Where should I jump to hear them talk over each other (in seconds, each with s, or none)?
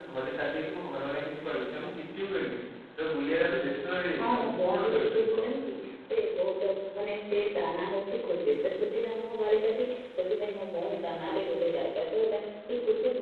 4.2 s